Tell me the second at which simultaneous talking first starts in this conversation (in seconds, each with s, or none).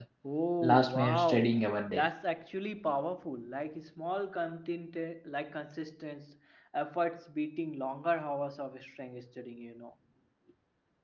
0.6 s